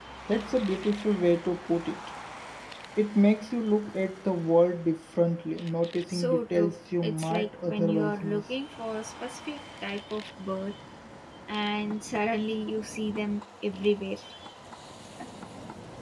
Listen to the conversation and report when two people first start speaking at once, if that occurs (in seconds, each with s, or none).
6.1 s